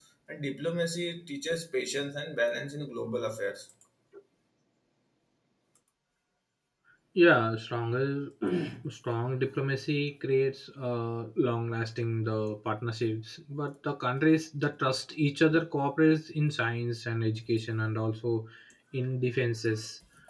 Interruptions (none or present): none